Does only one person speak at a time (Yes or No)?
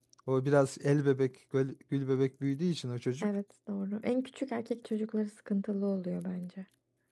Yes